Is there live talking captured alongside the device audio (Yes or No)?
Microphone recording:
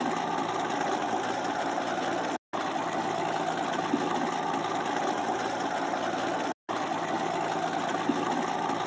No